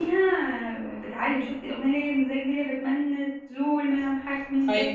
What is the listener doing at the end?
taking over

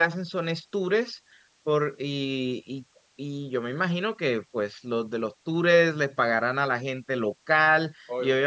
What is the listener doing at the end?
taking over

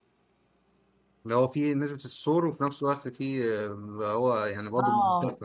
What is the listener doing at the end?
taking over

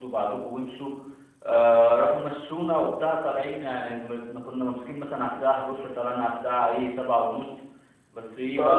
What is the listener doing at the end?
taking over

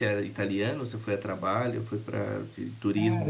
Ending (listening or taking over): taking over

